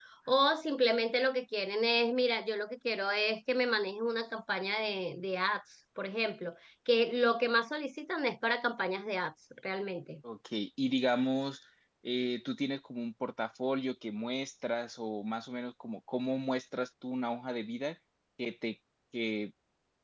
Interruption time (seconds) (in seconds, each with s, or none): none